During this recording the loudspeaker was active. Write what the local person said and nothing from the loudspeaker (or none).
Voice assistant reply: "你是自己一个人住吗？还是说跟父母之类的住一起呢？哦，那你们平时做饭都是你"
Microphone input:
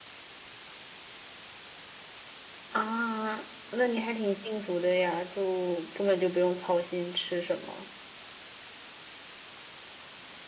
啊，那你还挺幸福的呀，就根本就不用操心吃什么。